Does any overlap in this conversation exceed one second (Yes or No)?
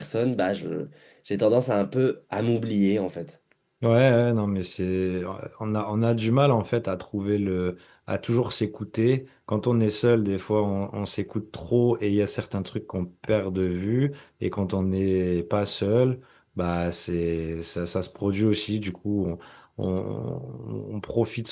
No